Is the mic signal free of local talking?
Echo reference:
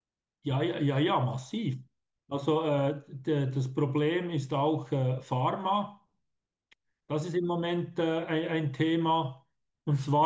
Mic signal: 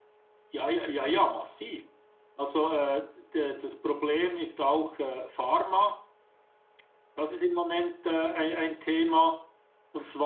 Yes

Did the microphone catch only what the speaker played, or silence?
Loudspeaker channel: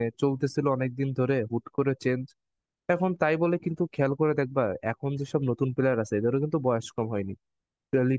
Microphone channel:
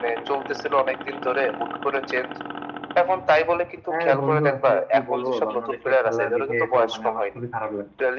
No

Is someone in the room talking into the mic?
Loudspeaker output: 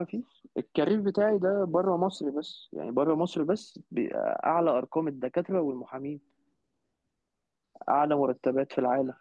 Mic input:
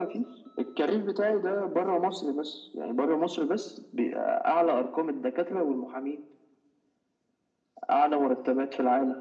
No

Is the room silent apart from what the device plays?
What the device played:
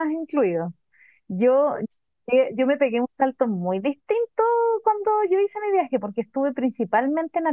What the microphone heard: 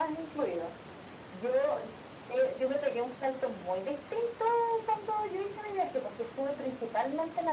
Yes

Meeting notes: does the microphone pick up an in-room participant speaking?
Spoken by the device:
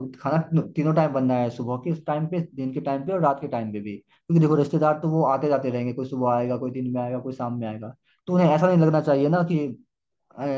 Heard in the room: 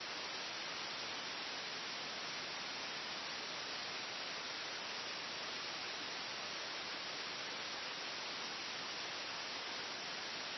No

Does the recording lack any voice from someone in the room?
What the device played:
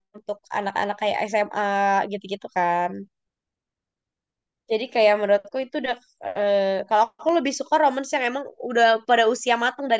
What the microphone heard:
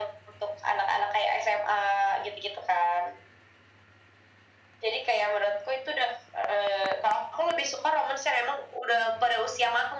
Yes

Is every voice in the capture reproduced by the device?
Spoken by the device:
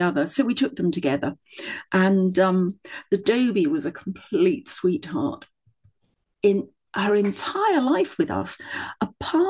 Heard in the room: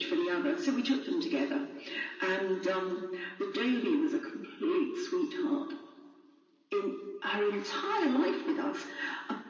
Yes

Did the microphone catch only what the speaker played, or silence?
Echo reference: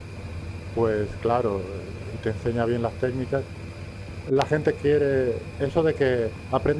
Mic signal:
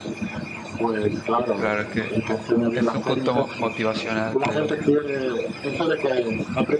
No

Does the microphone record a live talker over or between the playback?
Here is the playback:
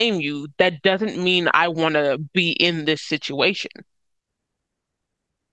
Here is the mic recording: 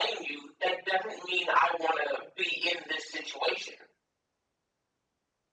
No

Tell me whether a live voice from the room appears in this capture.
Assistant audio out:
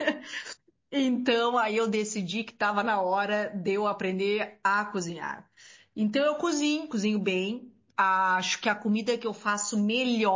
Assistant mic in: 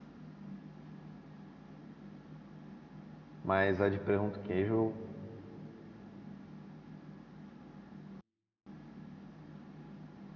Yes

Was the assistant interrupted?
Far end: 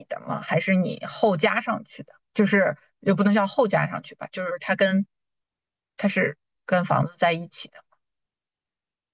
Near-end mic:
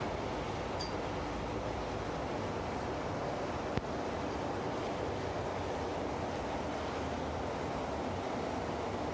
No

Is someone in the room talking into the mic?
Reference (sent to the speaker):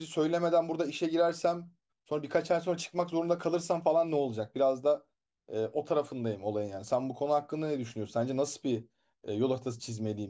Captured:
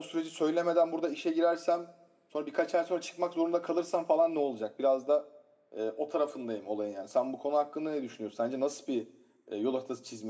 No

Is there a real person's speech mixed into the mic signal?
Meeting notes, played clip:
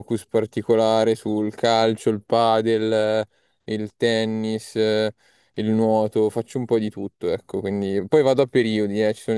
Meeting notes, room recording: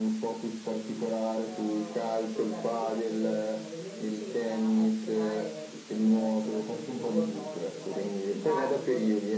Yes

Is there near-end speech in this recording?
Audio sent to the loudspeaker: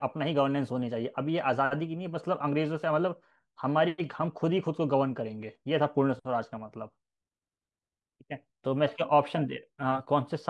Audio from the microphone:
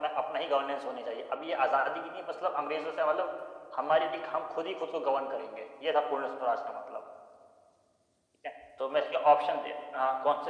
No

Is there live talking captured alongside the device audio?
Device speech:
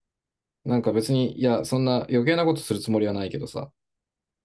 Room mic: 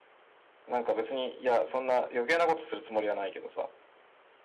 No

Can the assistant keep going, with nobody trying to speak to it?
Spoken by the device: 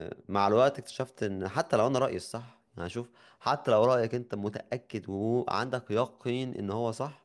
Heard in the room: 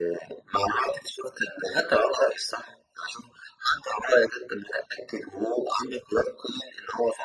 Yes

